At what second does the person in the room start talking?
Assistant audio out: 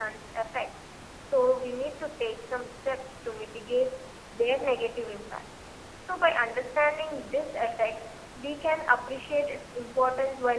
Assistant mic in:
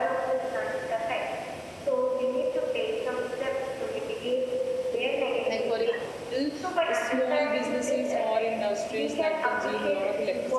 5.5 s

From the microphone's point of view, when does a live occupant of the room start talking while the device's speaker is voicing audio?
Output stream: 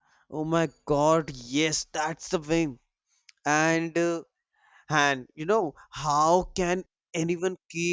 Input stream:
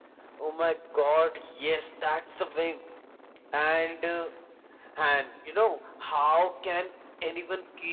none

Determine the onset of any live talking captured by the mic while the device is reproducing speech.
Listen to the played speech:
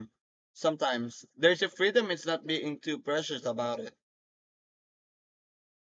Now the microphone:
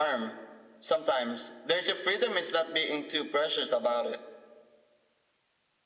none

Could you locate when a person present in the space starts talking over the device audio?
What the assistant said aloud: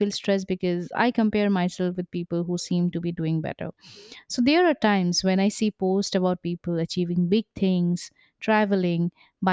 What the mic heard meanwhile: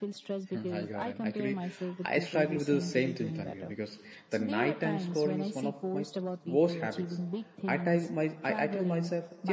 0.5 s

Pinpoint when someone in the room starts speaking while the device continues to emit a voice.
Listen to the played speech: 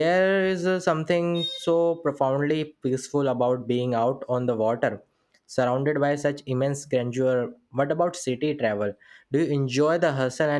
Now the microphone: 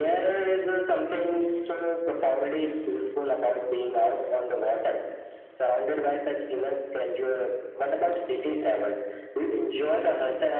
none

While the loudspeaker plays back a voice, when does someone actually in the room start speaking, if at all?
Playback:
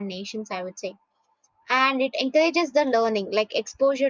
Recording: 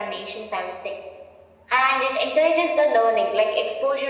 none

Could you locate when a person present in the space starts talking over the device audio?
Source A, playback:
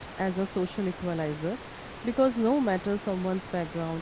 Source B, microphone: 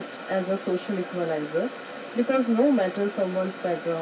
none

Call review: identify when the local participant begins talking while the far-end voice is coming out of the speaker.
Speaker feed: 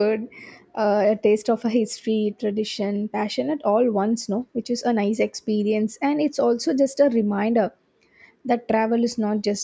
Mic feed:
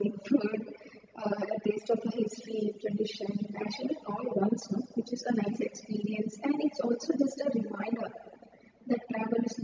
none

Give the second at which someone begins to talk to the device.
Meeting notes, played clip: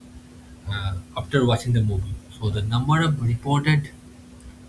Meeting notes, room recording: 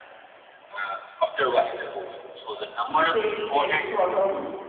2.8 s

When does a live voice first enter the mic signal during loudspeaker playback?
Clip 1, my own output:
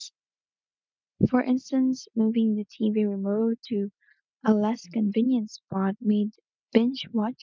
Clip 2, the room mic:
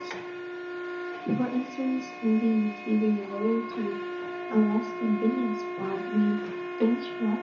none

